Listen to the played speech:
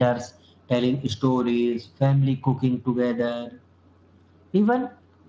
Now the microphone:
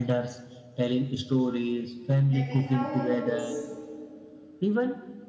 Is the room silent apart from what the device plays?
No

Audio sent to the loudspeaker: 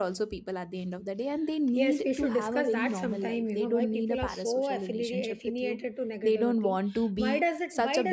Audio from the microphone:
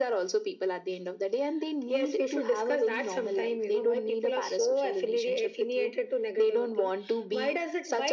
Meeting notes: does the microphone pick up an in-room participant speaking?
No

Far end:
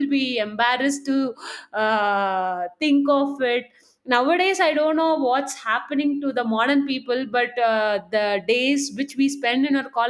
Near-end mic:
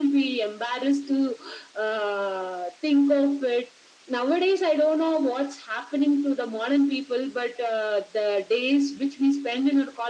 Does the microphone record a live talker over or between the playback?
No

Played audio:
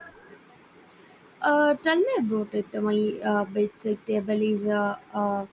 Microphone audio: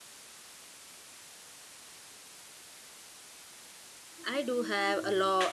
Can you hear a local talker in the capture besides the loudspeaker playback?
Yes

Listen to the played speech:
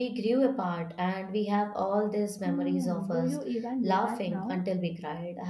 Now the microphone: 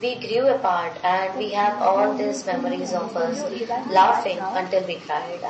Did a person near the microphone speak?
Yes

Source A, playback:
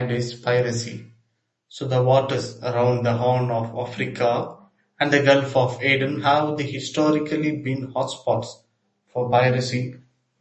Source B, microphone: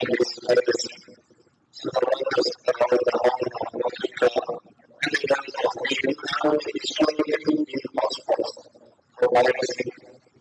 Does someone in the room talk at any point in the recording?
No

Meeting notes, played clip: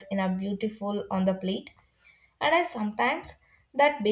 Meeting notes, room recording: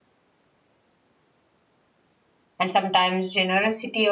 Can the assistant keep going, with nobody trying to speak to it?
No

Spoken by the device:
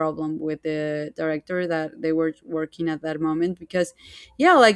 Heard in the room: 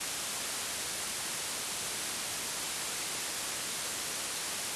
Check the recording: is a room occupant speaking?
No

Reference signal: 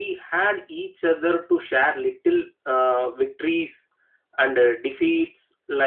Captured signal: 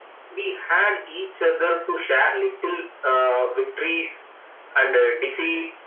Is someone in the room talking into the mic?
No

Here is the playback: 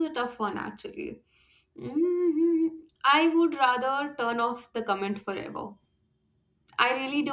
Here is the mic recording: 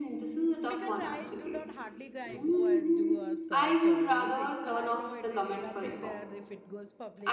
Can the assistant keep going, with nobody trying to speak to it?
No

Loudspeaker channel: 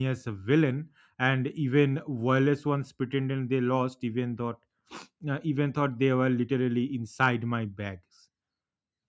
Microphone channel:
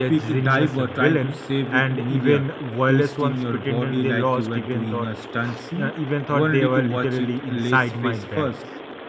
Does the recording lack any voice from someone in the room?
No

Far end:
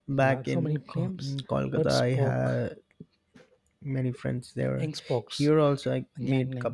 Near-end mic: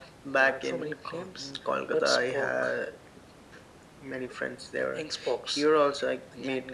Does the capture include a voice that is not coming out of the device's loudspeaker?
No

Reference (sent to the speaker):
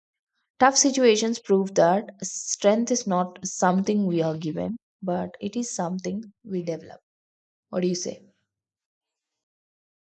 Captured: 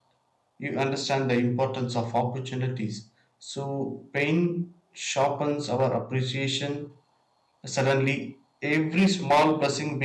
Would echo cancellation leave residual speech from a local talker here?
Yes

